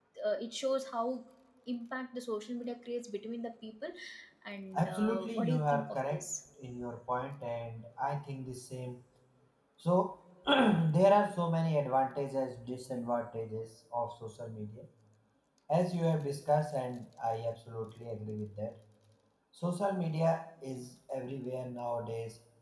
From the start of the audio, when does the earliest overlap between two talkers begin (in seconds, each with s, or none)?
4.8 s